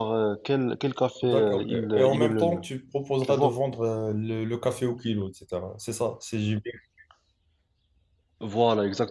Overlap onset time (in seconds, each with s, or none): 1.2 s